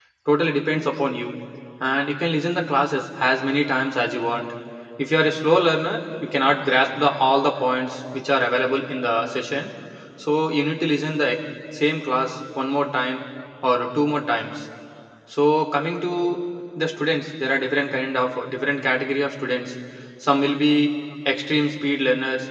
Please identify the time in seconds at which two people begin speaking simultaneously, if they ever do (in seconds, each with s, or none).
none